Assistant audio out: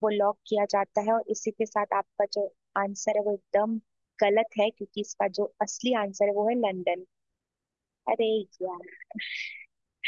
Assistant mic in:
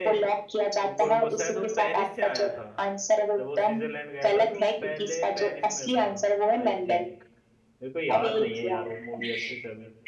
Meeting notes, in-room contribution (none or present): present